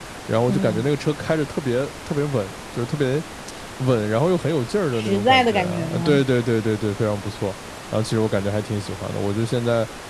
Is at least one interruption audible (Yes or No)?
Yes